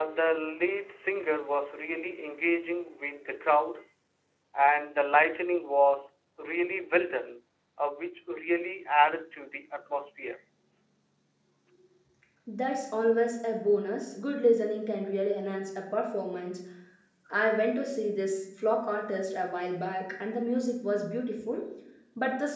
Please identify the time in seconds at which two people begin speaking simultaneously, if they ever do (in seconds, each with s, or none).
none